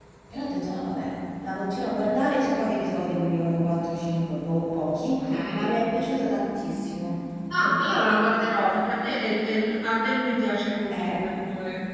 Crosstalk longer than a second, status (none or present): none